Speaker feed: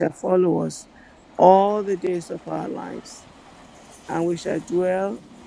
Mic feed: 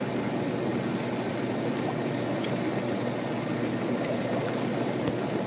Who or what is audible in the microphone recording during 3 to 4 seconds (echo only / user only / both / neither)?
neither